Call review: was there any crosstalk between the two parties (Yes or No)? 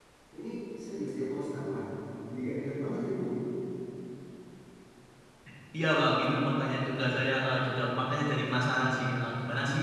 No